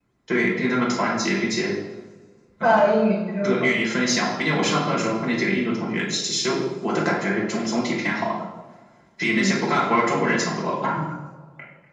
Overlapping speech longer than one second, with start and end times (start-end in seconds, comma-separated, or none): none